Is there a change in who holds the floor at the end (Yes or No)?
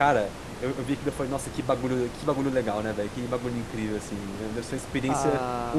Yes